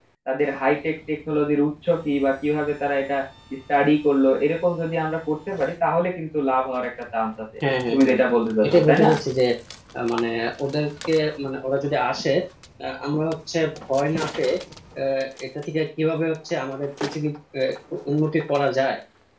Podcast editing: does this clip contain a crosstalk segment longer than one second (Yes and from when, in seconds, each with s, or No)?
No